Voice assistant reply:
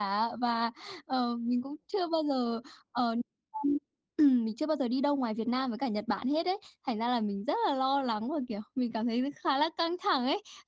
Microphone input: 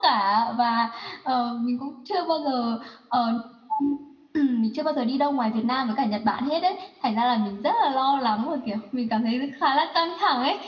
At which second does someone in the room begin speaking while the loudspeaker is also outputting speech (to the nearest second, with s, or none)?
none